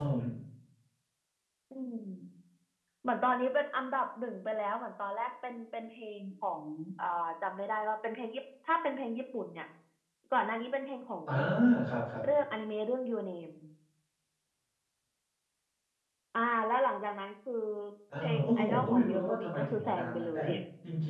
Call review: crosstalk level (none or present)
present